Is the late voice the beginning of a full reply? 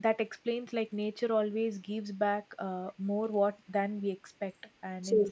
No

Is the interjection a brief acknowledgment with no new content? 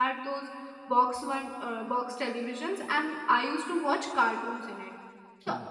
Yes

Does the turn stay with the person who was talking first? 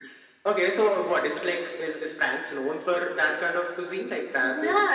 No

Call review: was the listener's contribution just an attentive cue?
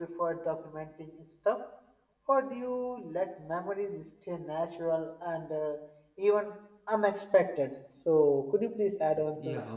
No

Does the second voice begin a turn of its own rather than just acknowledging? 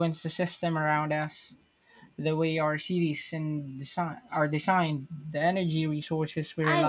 Yes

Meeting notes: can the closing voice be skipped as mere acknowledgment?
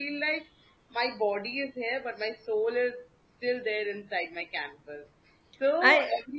Yes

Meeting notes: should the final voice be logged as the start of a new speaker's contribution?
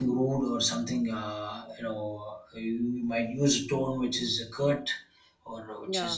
No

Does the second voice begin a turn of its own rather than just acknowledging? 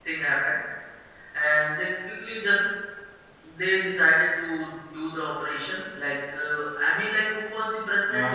Yes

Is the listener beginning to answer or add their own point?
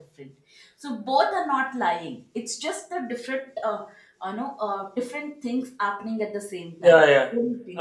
Yes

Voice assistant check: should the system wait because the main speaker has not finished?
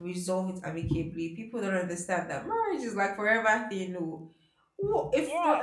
No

